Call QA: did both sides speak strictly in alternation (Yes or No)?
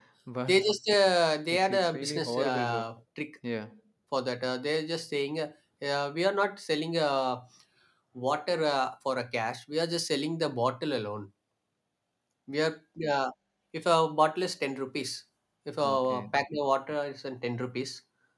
No